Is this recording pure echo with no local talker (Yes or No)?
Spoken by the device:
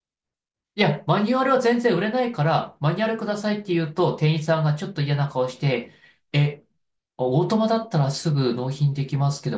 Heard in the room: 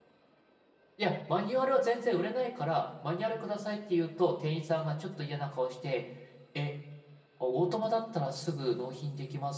Yes